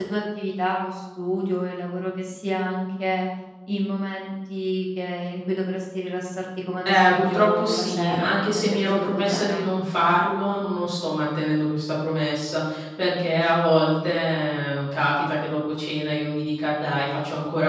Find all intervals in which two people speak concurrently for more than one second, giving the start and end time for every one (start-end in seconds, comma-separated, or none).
6.8-9.6